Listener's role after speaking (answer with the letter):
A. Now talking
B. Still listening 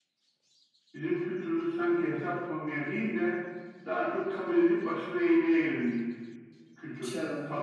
A